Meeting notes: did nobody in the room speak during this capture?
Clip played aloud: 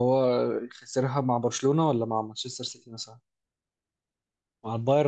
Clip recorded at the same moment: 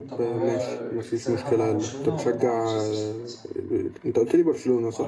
No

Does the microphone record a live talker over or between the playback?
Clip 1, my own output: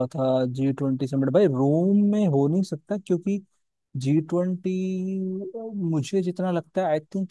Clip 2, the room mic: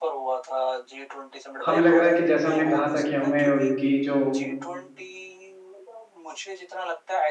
Yes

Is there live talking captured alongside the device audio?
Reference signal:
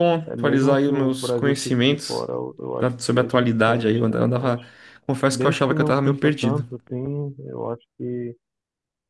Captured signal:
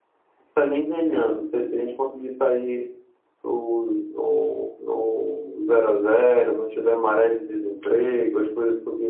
Yes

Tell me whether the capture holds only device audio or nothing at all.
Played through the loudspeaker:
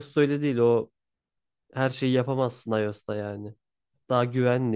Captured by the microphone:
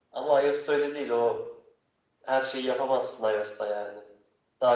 Yes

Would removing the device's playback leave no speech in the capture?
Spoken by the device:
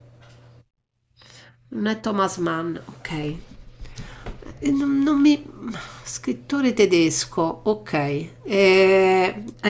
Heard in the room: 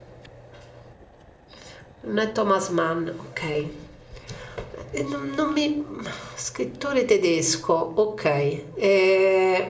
Yes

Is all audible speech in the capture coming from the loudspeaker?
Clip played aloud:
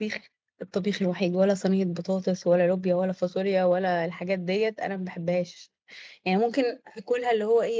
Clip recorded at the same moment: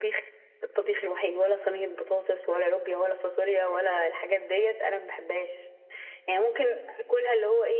Yes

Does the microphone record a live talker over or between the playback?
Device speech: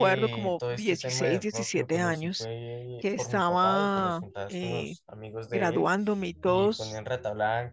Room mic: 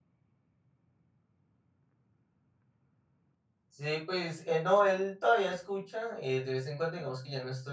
Yes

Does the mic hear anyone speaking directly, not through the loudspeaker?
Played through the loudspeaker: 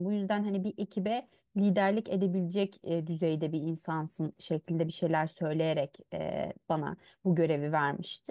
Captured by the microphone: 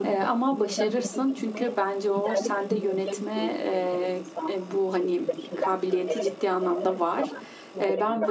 Yes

